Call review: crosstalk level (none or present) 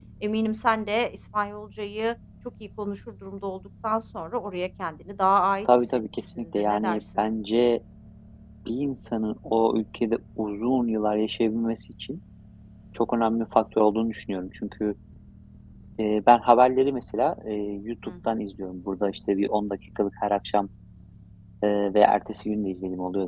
present